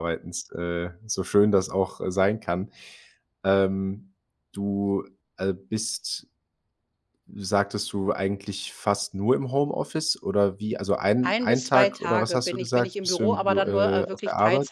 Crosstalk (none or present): present